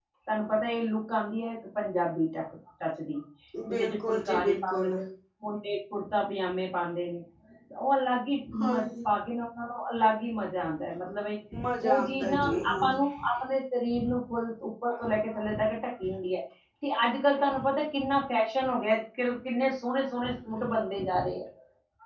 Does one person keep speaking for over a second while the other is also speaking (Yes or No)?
Yes